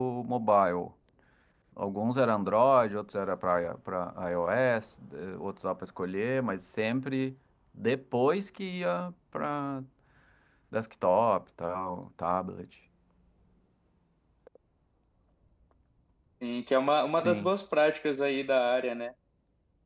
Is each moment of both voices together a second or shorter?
Yes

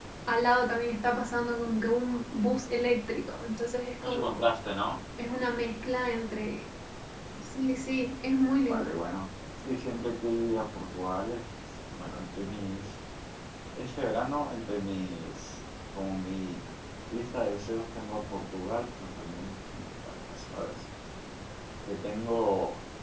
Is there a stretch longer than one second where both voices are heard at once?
No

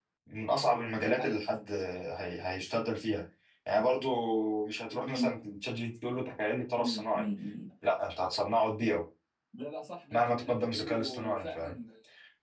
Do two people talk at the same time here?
Yes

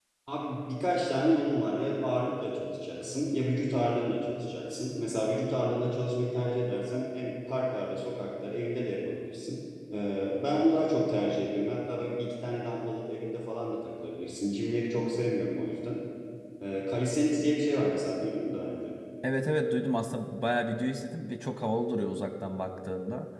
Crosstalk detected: No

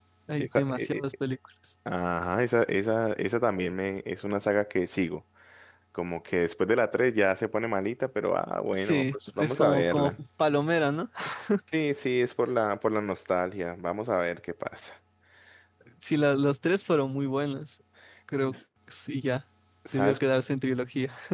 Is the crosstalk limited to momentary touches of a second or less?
No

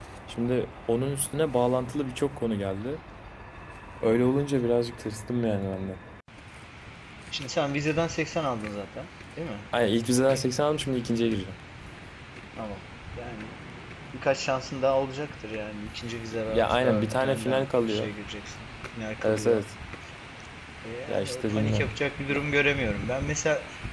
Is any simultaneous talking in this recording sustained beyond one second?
Yes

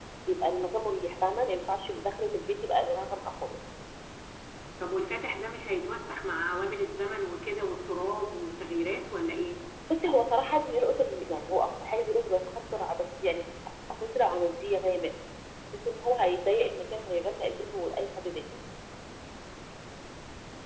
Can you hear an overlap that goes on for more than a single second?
No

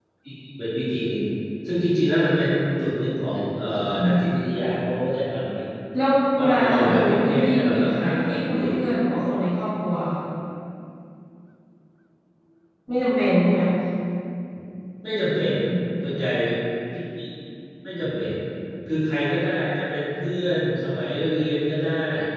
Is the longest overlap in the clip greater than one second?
Yes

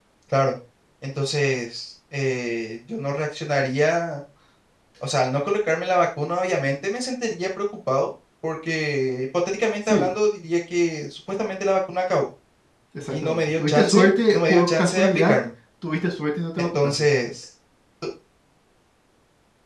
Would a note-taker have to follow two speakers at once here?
Yes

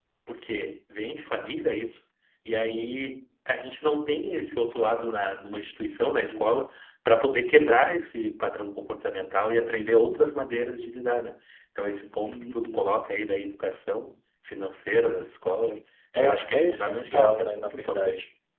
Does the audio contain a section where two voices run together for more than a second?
Yes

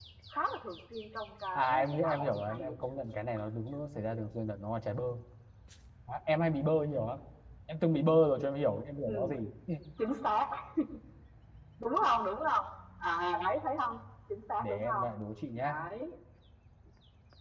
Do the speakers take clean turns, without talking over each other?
No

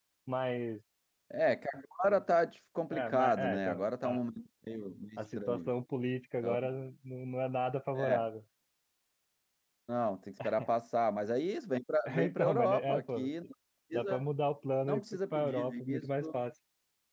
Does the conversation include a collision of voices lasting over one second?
Yes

